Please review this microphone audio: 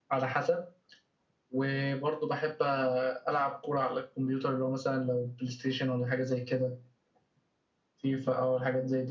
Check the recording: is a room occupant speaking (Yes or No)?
No